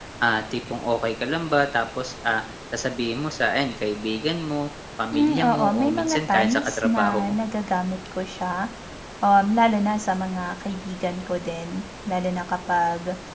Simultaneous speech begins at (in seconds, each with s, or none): 5.1 s